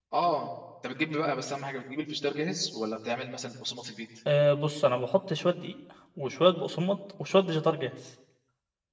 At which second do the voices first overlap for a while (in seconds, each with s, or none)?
none